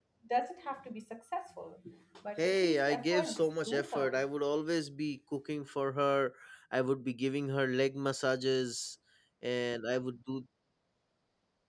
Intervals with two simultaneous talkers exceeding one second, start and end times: 2.4-4.2

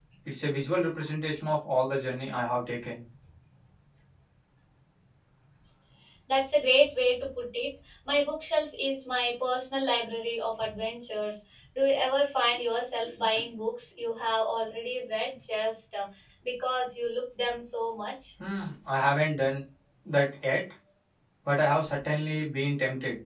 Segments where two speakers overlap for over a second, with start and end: none

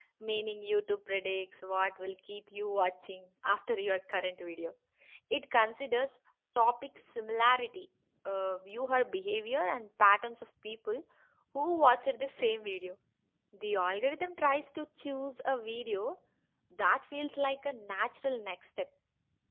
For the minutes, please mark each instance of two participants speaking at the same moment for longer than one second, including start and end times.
none

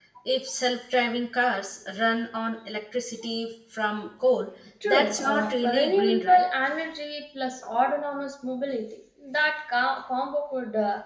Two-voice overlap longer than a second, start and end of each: 4.9-6.4

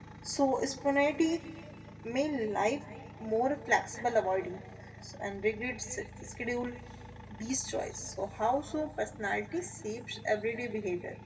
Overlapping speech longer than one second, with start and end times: none

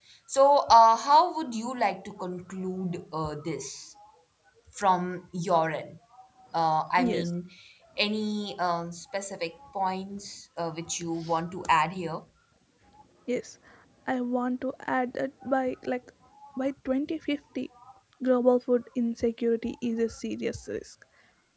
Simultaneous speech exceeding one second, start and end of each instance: none

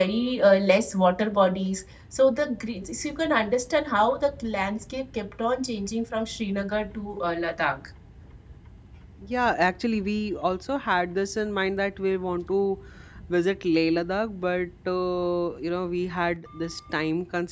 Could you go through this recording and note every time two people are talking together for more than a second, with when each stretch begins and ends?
none

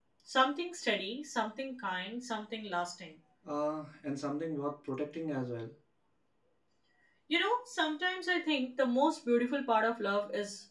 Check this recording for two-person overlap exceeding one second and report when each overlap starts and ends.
none

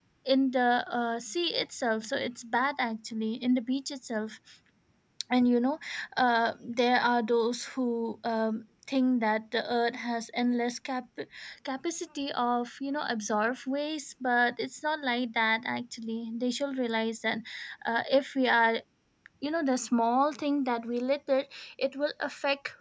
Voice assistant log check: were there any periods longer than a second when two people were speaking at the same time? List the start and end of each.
none

